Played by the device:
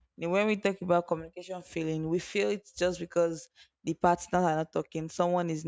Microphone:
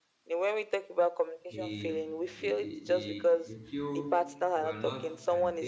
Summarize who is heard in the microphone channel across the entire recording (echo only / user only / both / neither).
both